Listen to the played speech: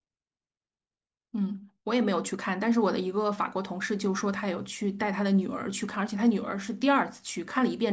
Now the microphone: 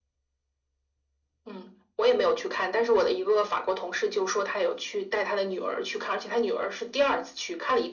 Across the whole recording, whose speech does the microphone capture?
echo only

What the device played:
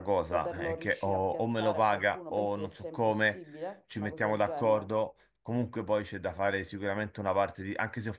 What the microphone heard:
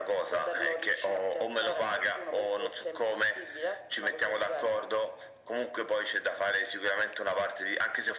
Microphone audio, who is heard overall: echo only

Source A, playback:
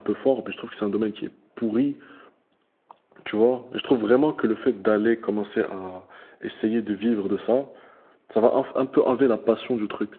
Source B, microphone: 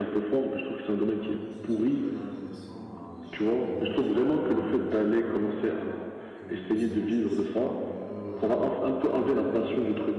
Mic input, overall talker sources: both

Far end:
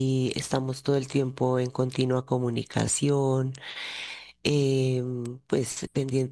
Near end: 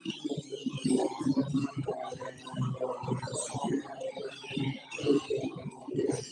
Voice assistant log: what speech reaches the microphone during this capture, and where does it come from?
echo only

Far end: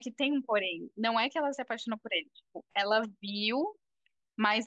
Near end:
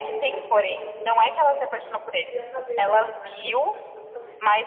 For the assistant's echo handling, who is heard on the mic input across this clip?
both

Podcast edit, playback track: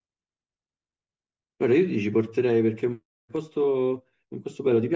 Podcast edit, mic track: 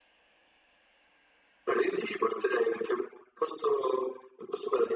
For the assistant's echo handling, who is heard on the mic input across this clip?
echo only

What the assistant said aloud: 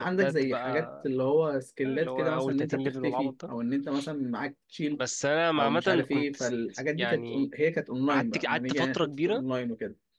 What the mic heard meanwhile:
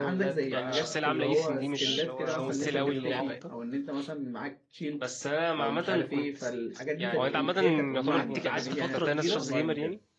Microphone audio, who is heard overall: both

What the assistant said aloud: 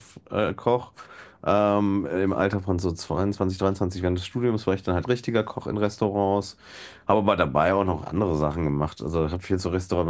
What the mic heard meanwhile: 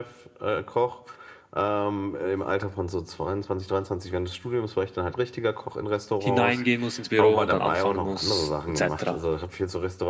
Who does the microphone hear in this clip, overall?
both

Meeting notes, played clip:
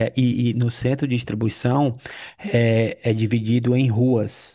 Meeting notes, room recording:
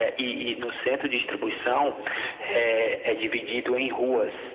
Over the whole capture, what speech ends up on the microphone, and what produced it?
both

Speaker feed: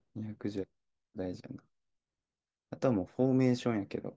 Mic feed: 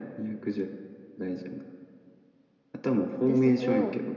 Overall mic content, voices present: both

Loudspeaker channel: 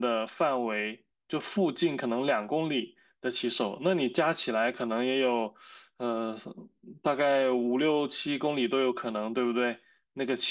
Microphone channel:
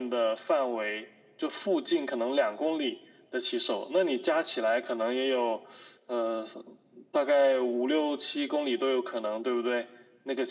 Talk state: echo only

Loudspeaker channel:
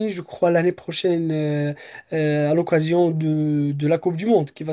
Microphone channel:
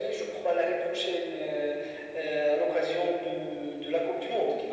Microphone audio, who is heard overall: echo only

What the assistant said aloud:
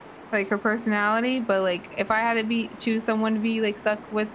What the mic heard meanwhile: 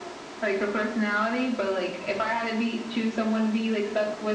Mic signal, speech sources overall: echo only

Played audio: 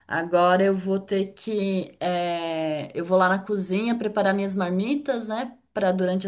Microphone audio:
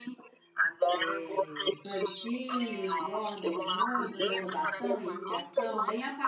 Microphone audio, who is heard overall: both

